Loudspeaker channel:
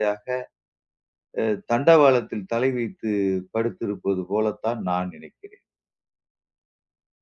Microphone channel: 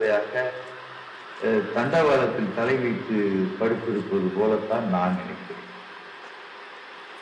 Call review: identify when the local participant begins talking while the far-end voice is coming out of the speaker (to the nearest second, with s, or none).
none